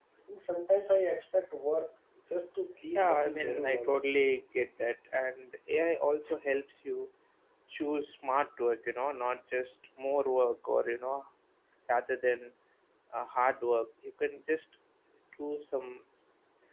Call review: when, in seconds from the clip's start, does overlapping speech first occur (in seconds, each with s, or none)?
2.9 s